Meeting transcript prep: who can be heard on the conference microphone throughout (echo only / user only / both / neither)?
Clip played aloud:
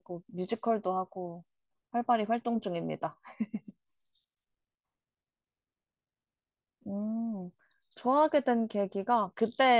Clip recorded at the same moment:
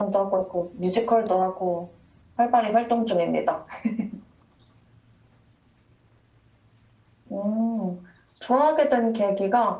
echo only